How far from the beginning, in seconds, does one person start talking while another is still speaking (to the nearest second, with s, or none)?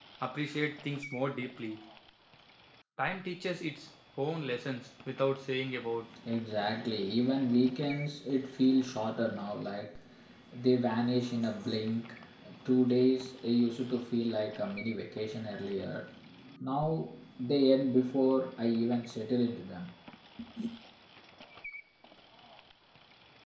none